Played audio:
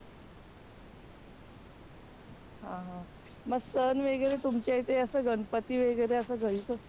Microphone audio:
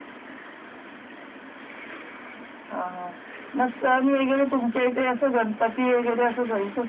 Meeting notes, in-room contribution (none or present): none